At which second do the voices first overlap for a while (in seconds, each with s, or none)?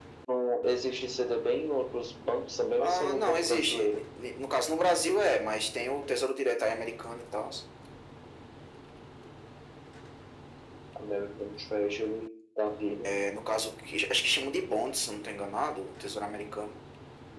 2.8 s